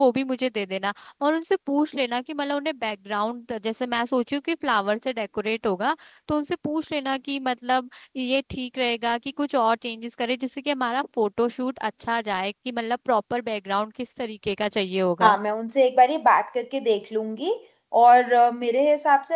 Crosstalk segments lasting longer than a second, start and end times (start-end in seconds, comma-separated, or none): none